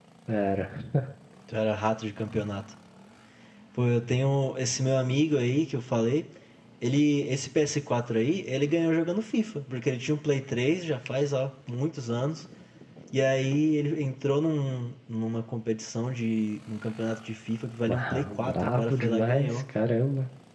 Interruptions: present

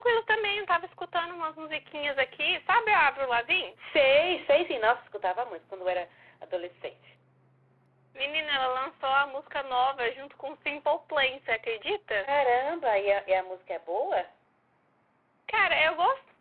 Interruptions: none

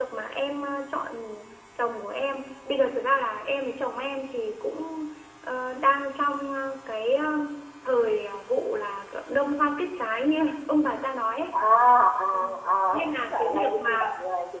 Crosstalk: present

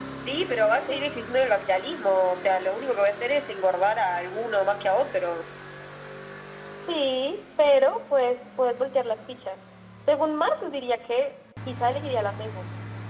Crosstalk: none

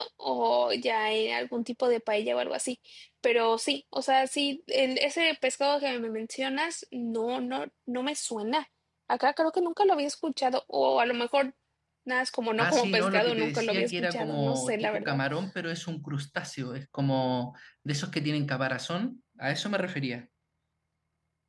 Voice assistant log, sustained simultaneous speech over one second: present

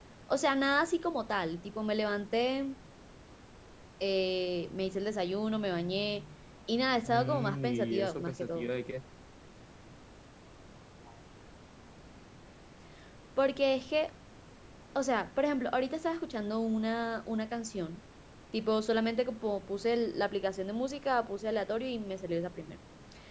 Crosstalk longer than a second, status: present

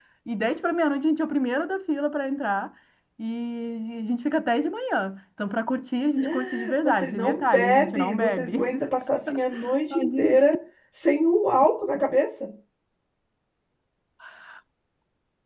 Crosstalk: present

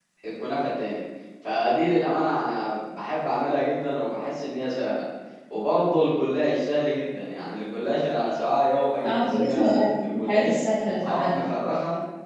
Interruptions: present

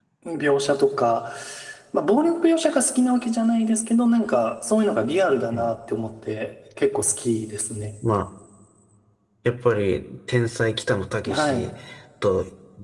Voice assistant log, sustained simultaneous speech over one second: none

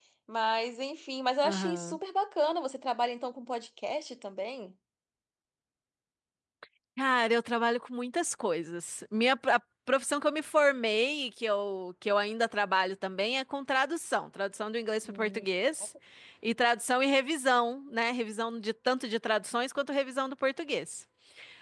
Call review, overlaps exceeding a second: none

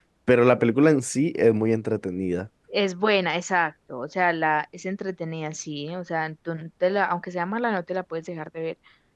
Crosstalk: none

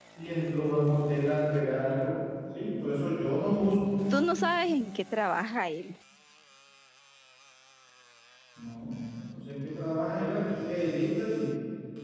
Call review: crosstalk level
none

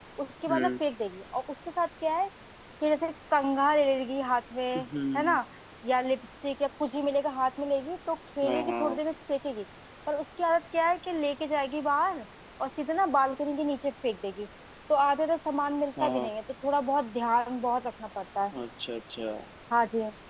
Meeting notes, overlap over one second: none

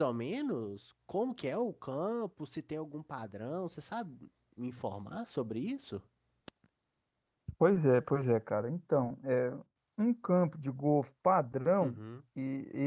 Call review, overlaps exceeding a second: none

